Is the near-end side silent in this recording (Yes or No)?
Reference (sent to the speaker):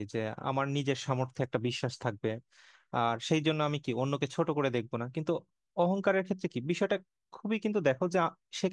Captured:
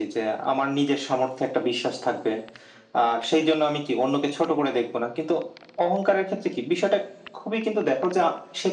Yes